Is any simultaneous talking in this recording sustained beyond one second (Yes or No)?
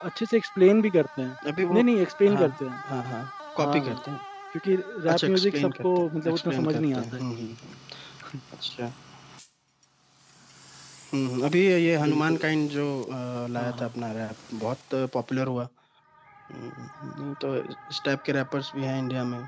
Yes